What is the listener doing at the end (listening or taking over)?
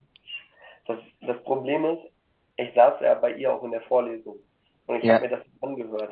listening